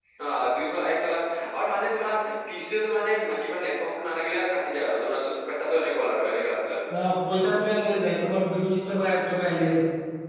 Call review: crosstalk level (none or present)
none